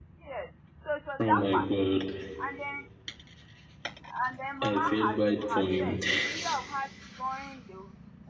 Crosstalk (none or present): present